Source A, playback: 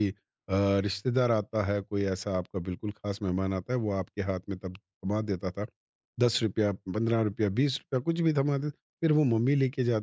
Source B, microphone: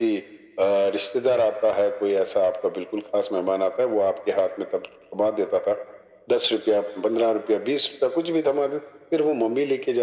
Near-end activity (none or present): none